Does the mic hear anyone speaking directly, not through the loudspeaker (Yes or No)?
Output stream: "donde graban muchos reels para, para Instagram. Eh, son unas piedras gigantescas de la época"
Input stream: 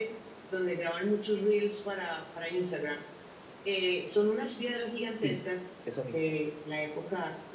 Yes